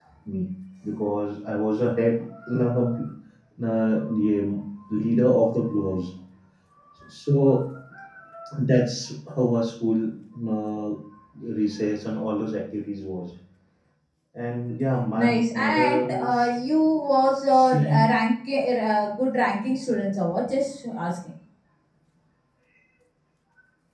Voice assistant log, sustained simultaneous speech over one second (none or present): present